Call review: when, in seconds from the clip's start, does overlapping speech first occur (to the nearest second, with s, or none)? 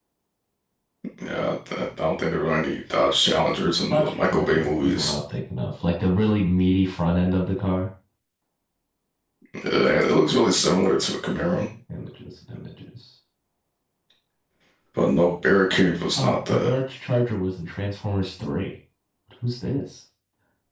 4 s